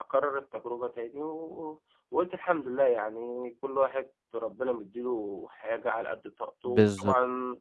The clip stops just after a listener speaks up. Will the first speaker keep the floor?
Yes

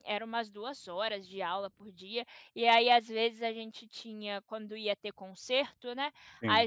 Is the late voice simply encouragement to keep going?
Yes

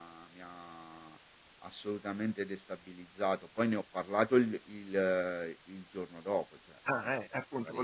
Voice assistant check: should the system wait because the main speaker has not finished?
No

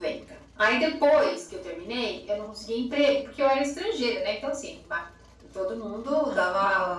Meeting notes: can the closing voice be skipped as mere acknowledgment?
Yes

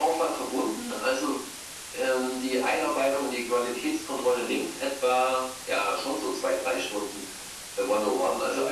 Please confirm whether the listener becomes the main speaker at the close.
No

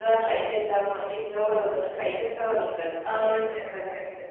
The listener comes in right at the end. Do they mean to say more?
Yes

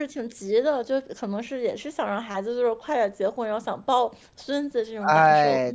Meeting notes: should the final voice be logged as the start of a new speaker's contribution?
Yes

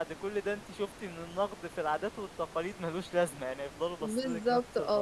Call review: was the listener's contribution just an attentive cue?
No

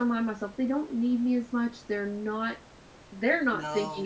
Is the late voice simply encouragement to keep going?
Yes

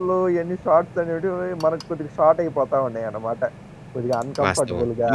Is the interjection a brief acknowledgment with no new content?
No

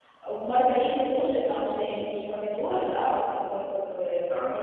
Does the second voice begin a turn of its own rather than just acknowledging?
Yes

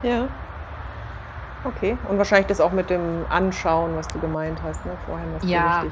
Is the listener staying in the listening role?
No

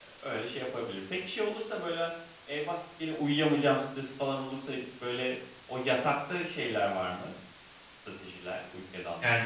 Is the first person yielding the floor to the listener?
Yes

